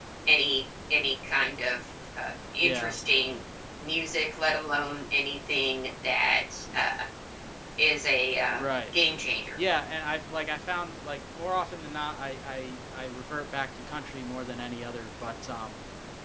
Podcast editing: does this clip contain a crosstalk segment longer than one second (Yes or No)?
No